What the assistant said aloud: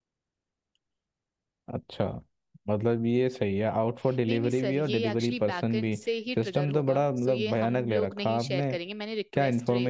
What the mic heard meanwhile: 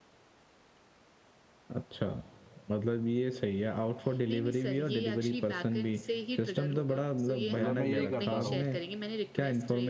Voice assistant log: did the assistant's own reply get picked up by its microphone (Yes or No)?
Yes